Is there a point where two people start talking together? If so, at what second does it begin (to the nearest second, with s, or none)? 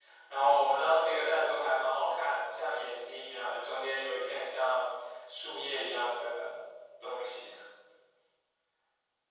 none